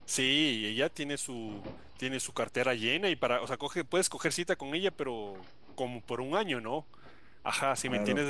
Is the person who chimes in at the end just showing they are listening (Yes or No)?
Yes